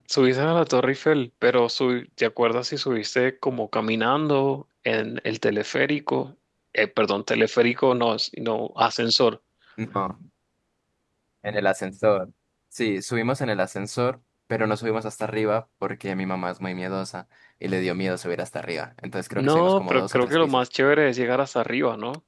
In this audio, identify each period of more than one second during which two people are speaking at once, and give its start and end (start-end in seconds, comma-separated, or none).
19.3-20.6